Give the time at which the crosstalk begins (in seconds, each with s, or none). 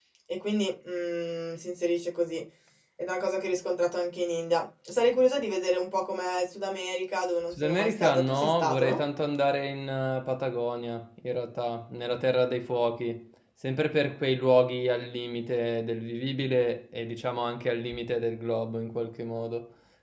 7.5 s